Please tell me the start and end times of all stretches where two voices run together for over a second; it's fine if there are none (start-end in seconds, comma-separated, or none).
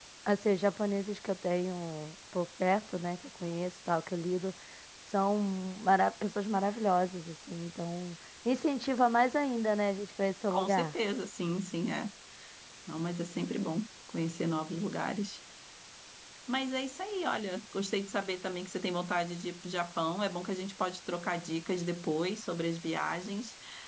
none